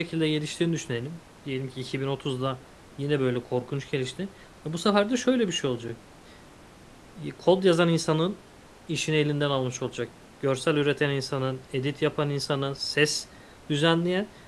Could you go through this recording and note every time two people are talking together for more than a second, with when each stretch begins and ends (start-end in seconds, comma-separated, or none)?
none